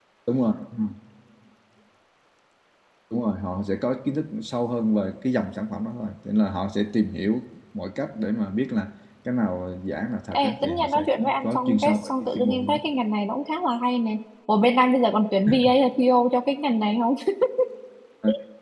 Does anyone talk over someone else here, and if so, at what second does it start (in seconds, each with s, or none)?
10.3 s